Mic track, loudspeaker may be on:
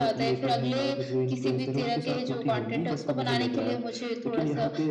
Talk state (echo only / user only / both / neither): echo only